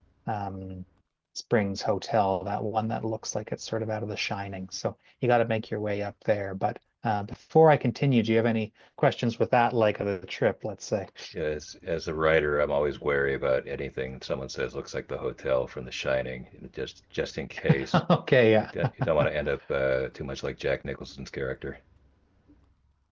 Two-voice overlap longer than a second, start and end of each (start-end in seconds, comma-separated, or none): none